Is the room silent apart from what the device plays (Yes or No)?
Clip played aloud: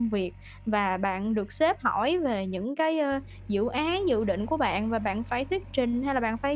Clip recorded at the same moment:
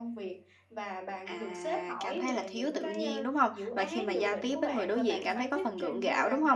No